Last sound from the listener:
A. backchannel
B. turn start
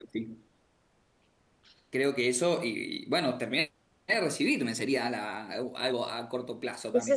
B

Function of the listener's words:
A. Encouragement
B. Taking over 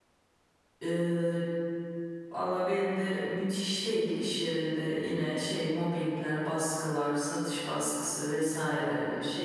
A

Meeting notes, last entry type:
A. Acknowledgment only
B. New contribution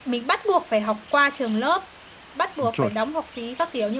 A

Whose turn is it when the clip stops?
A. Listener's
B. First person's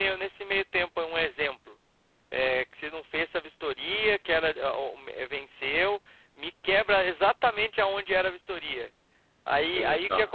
B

